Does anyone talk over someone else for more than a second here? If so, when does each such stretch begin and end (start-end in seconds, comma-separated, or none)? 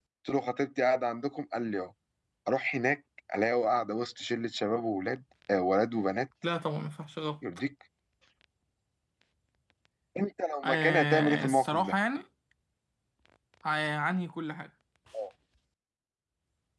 10.6-11.9